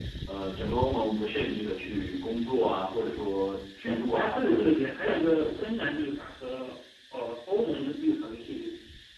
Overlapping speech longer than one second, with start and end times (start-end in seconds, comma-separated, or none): 3.9-5.8